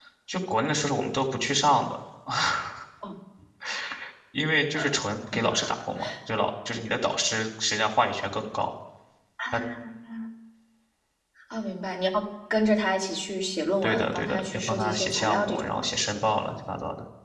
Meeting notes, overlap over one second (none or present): present